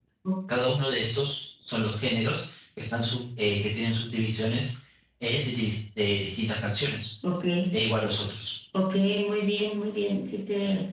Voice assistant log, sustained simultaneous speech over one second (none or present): none